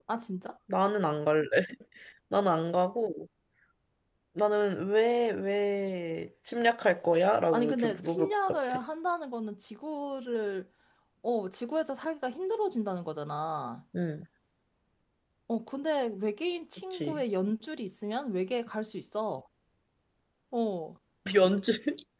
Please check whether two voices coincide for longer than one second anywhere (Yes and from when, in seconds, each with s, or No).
Yes, from 7.5 s